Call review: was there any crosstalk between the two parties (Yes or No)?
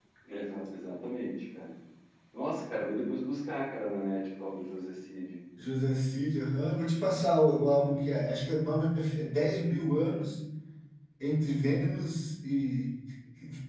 No